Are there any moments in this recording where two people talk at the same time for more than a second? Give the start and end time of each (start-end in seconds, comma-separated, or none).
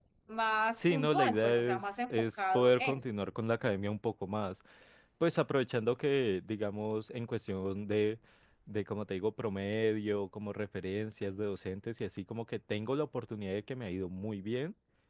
0.8-3.0